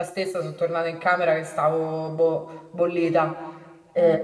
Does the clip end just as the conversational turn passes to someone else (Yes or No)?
No